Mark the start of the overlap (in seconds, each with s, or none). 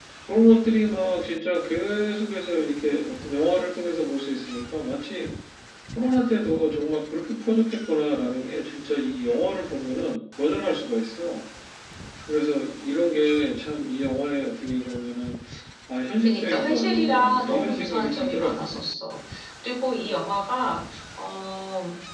16.2 s